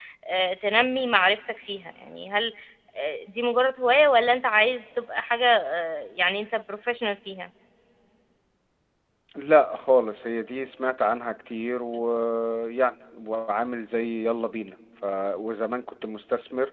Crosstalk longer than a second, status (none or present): none